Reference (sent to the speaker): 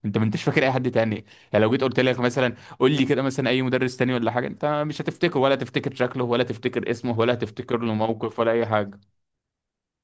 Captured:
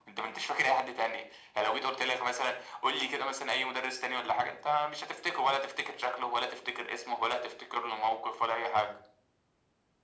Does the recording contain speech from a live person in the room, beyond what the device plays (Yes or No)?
No